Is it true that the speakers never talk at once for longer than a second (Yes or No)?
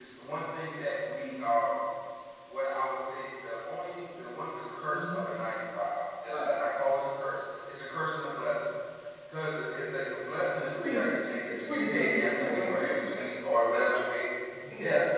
No